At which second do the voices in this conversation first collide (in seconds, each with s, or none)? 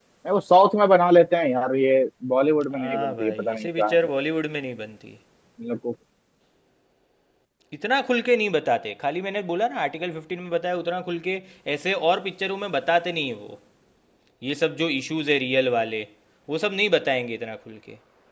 2.7 s